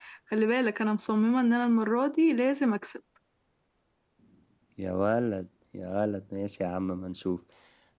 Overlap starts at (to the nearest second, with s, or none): none